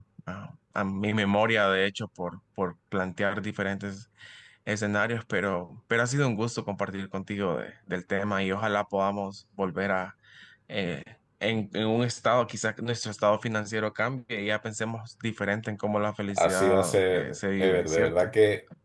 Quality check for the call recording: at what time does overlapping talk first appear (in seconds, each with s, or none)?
16.3 s